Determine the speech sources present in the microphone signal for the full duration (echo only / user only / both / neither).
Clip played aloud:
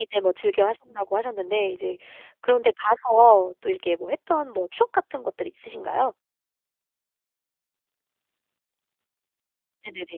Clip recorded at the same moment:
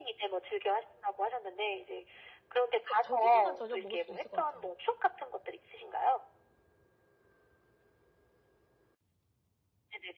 both